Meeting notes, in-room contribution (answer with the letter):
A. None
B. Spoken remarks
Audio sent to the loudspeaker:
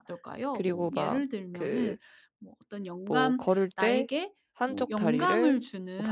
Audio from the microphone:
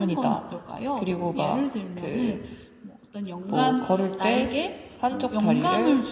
B